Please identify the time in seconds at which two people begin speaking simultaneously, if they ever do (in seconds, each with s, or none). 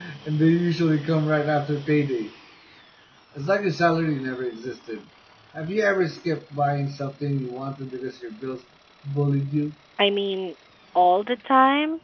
none